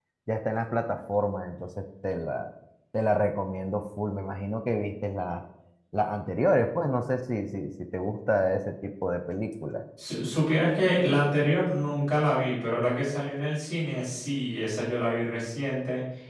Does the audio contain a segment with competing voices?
No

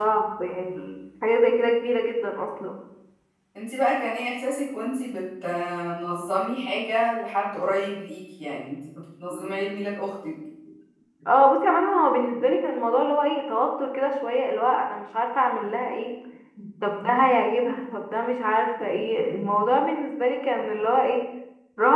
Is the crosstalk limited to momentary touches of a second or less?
Yes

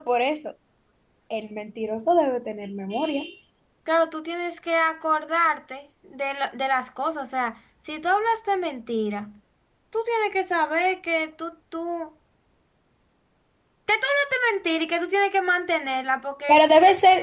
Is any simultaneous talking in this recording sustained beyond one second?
No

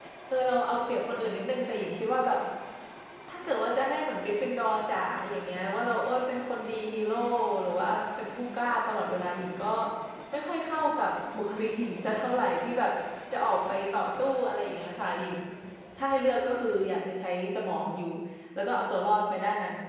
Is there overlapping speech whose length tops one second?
No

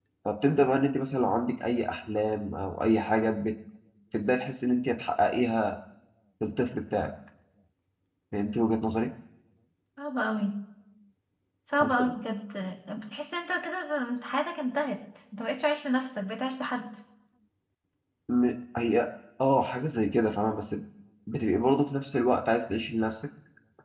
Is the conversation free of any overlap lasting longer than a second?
Yes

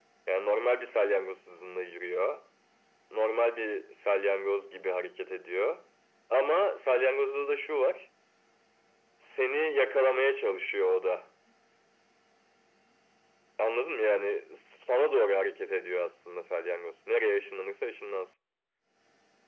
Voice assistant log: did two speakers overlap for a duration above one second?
No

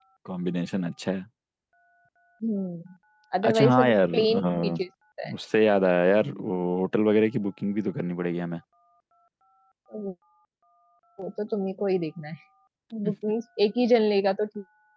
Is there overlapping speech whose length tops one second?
Yes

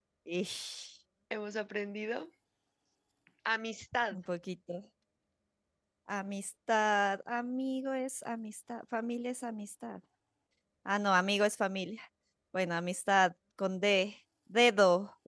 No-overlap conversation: Yes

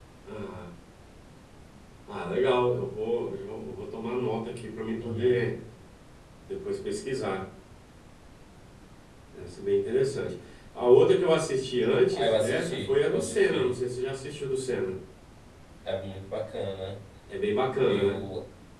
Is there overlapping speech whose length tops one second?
Yes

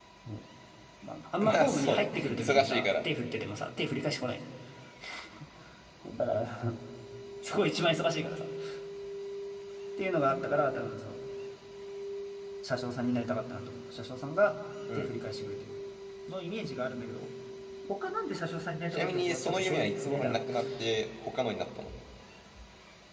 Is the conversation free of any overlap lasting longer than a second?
No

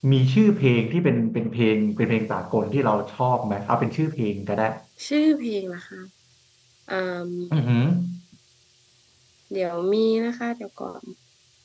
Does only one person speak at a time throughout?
Yes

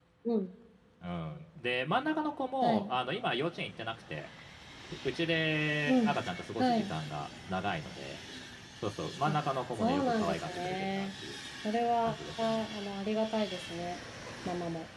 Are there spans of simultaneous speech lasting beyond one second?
Yes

